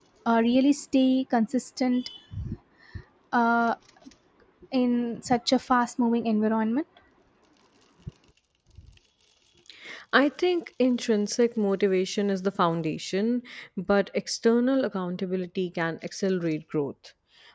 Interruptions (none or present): none